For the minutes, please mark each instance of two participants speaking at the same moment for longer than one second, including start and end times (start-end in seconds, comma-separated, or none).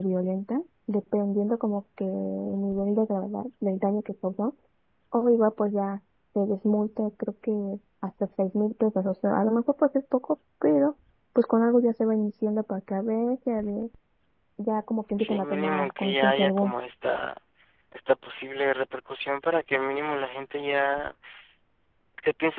15.2-16.7